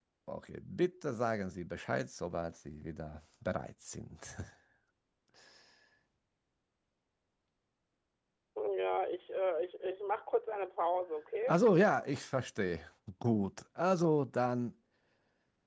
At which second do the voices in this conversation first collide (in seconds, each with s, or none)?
none